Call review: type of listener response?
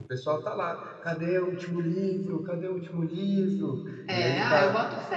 taking over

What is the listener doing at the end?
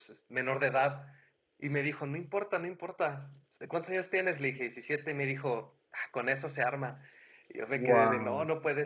listening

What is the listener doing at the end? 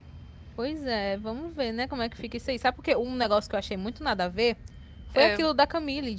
listening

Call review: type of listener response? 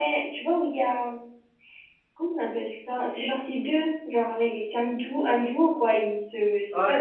taking over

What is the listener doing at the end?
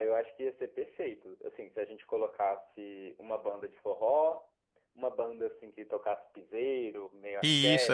taking over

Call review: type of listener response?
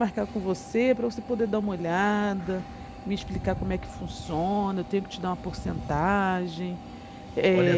taking over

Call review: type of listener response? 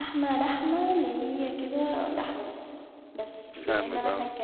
listening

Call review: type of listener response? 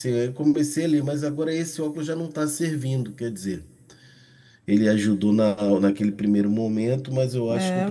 taking over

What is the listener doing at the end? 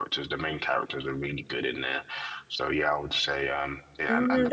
taking over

